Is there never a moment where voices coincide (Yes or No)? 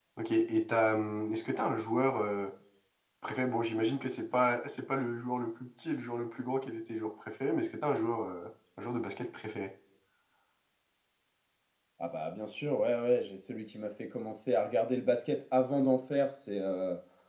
Yes